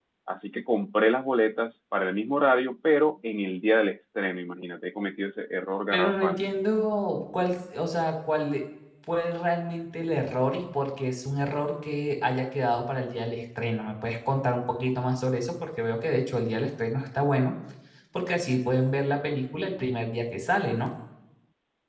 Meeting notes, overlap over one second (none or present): none